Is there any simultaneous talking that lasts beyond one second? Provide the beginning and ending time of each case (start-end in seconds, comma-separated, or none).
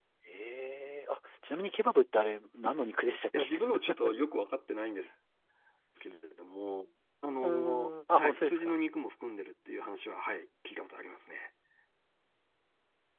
7.4-8.8